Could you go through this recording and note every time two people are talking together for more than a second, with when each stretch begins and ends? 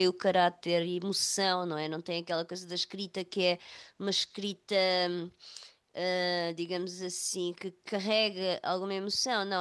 none

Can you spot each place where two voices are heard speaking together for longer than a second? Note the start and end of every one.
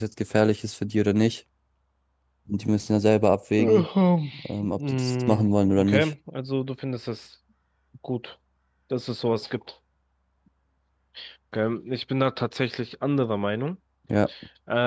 4.8-6.1

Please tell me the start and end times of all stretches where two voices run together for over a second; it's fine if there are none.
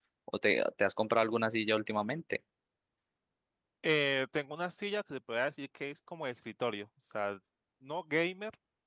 none

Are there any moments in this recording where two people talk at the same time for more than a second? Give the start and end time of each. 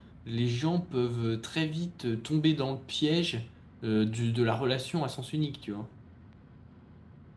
none

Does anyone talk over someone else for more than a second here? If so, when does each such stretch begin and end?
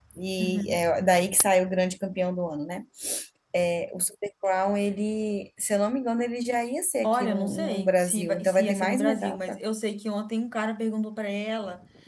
7.0-9.6

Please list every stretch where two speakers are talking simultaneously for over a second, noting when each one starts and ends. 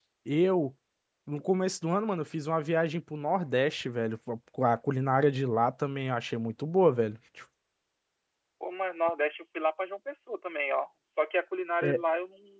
none

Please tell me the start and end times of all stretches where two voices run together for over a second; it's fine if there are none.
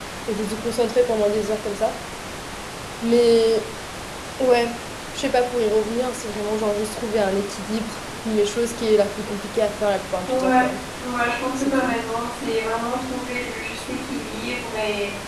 none

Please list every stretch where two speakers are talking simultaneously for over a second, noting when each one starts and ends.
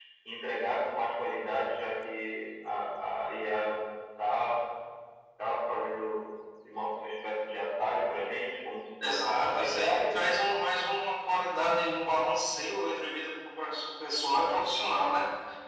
9.0-10.3

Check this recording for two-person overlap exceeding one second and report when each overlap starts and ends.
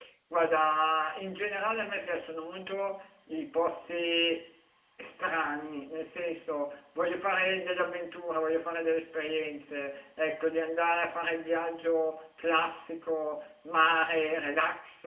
none

